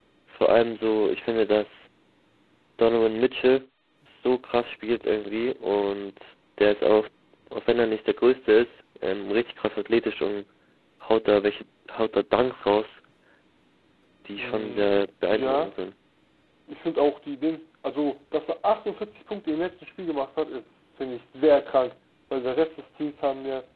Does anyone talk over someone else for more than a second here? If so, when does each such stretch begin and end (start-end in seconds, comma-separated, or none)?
14.4-15.7